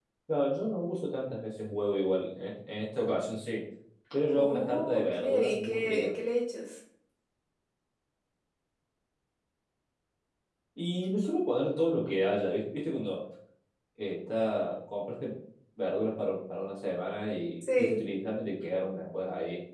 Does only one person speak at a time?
No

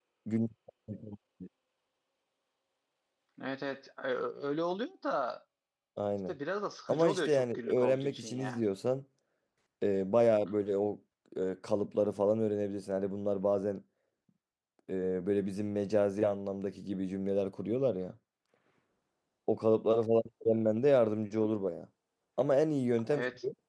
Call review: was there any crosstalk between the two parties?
Yes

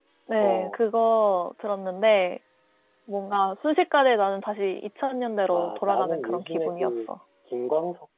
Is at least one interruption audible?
Yes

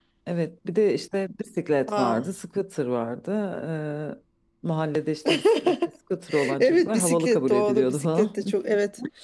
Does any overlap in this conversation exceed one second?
Yes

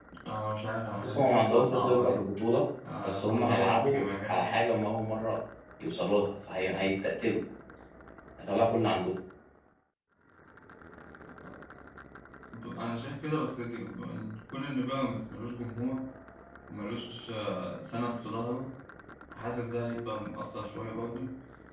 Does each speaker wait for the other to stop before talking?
No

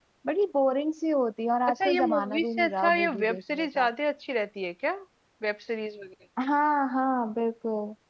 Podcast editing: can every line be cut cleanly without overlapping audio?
No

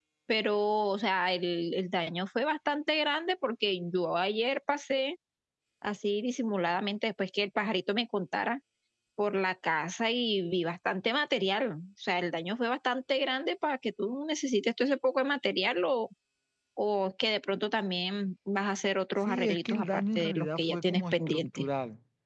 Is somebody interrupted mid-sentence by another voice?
Yes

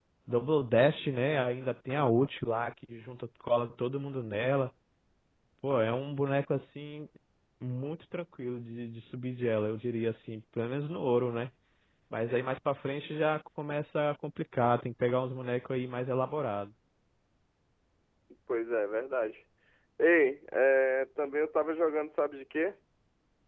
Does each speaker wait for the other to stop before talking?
Yes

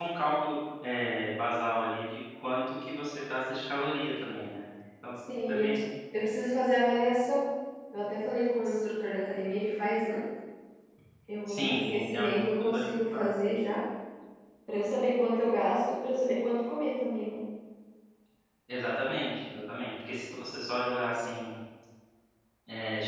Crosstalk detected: Yes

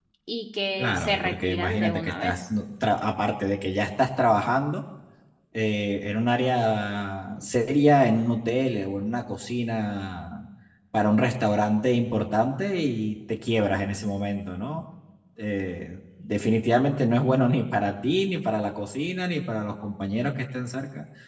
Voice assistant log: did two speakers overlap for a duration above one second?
Yes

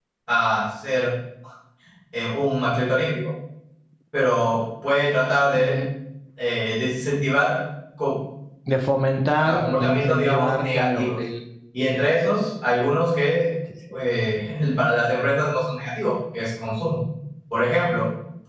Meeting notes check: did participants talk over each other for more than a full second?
Yes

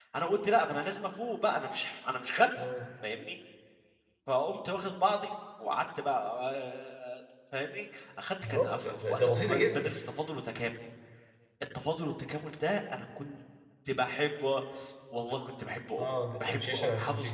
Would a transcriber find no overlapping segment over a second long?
No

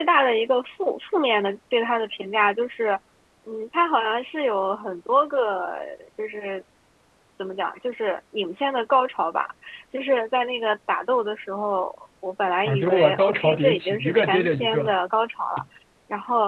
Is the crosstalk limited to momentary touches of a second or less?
No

